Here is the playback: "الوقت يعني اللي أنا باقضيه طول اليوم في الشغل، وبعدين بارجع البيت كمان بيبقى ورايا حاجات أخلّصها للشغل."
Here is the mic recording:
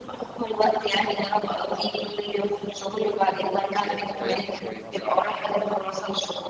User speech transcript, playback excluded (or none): لو ريّحتِ شوية مثلًا مع